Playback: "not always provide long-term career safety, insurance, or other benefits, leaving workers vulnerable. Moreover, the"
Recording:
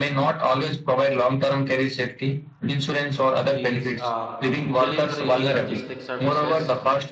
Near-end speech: present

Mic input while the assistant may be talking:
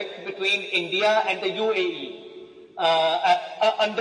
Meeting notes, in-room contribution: none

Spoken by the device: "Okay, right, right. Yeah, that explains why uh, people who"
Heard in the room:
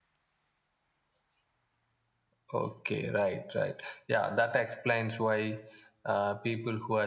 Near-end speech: none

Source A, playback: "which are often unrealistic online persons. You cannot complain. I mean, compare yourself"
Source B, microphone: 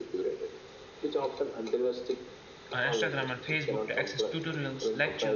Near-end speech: present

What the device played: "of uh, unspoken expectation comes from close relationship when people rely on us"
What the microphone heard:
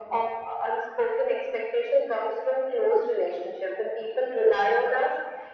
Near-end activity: none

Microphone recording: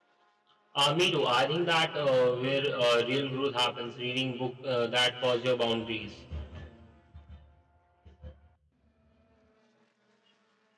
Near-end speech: none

